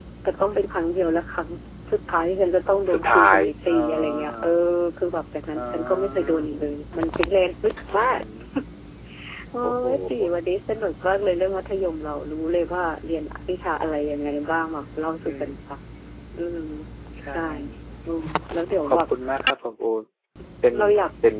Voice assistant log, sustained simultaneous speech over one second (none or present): present